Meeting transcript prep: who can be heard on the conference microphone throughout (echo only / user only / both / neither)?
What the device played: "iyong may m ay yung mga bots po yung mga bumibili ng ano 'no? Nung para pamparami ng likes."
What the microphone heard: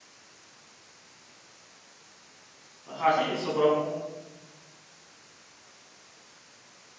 user only